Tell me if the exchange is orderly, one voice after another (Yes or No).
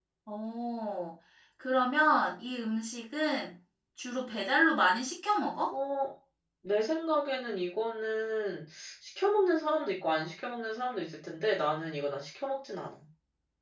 Yes